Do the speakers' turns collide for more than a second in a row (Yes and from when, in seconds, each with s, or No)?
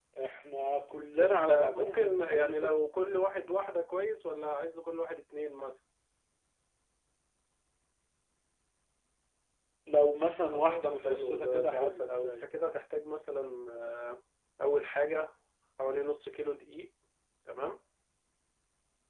Yes, from 1.1 s